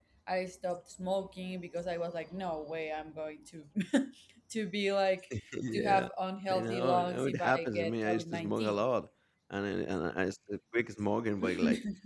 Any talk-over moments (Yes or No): Yes